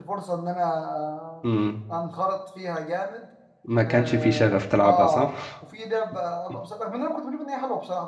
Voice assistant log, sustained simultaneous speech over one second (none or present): present